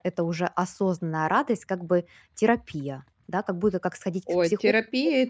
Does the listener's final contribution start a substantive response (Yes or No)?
Yes